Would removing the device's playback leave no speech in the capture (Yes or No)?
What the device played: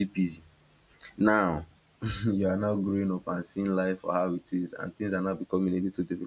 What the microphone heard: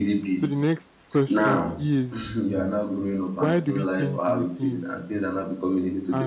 No